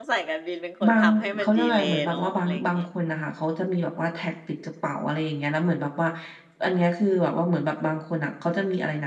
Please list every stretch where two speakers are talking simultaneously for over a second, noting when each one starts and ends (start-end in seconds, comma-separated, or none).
0.8-2.8